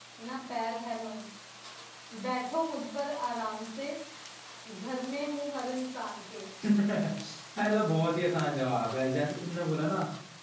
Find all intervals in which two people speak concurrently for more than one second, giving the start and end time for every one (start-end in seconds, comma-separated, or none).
none